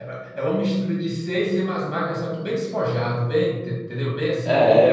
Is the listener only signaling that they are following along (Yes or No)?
No